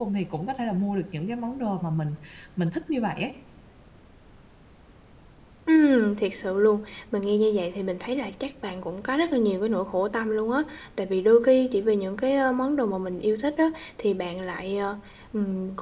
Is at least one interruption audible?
No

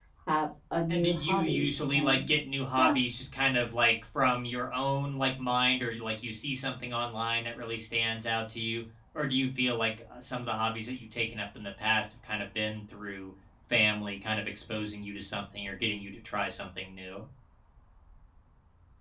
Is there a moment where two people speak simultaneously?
Yes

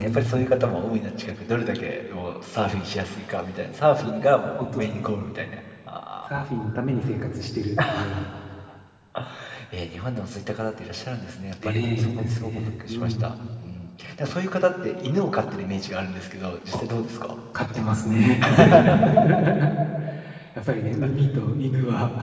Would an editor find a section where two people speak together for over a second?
Yes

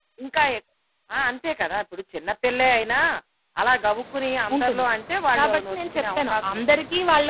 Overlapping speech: Yes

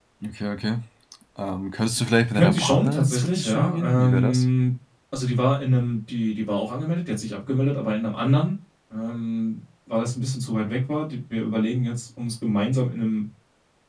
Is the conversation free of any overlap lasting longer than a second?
No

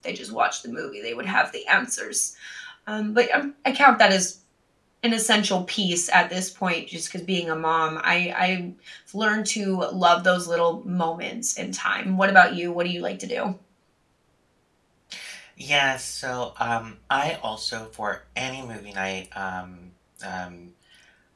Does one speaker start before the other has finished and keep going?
No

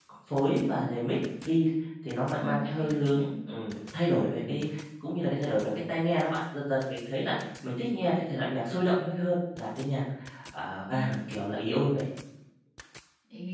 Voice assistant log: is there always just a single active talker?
No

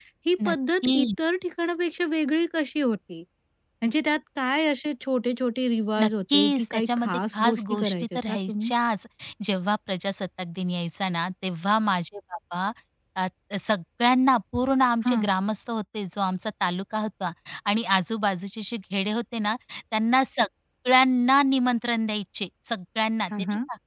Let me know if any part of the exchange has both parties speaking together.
Yes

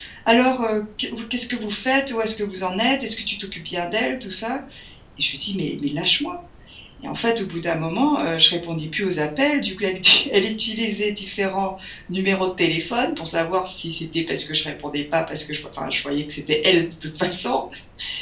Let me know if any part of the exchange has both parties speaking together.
No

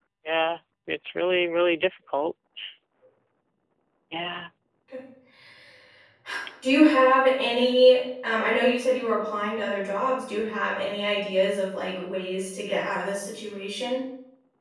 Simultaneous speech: No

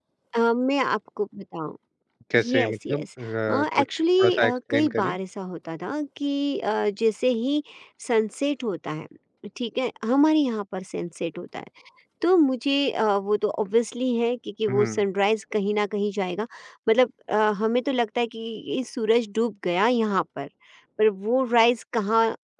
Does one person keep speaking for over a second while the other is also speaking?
Yes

